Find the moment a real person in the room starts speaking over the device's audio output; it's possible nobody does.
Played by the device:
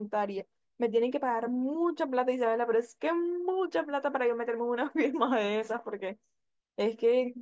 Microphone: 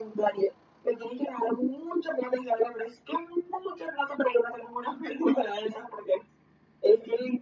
none

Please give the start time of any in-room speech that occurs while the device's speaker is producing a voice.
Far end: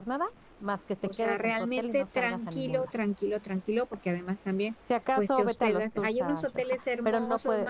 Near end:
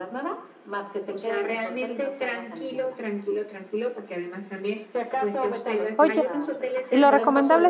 6 s

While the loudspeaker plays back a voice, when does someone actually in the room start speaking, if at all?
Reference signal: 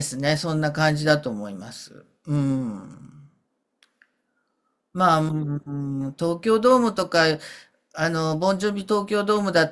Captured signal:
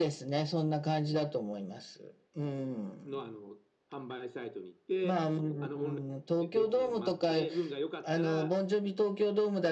3 s

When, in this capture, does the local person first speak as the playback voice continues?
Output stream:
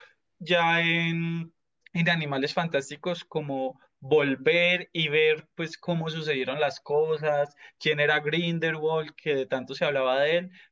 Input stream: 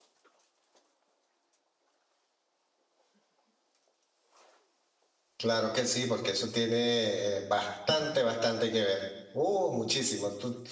5 s

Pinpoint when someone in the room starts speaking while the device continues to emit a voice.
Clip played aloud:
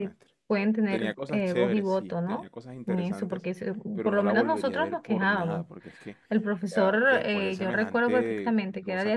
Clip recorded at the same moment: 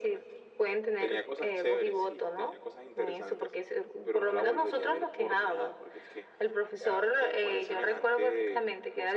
none

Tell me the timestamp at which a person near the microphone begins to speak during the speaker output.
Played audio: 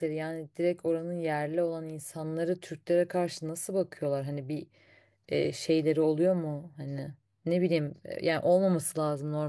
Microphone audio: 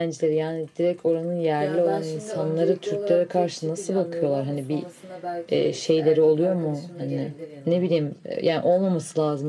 2 s

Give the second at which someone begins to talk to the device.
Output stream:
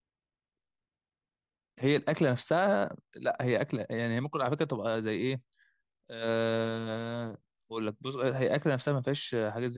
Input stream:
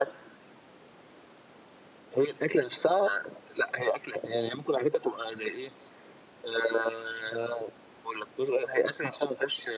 none

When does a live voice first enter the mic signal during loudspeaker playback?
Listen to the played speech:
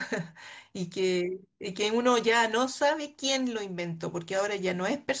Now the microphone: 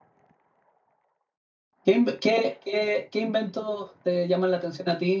2 s

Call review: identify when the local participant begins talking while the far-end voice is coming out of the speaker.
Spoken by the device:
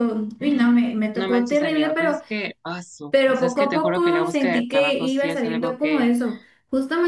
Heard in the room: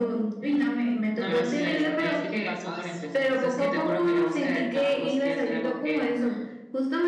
1 s

